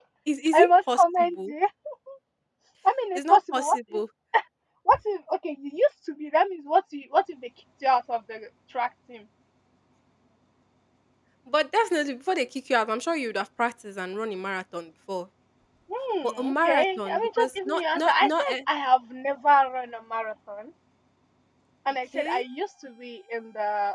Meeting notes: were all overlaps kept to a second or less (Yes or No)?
No